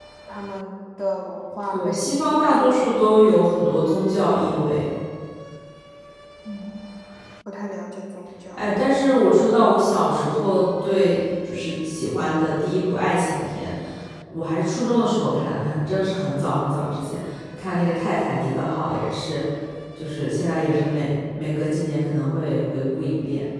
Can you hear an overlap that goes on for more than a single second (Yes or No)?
Yes